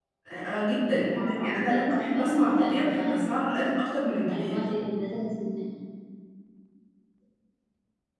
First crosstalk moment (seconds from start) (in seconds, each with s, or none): 1.0 s